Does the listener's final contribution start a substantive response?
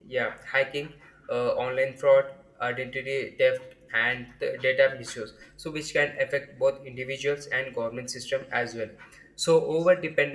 No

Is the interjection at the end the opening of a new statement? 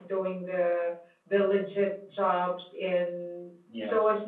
No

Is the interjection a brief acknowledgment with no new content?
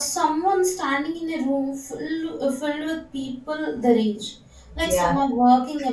Yes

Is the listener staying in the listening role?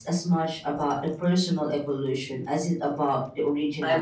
No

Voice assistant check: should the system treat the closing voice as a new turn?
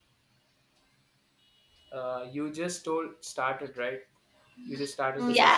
Yes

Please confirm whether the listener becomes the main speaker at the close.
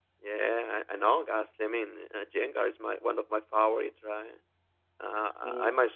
No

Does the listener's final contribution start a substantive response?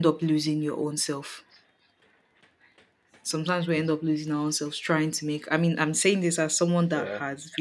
No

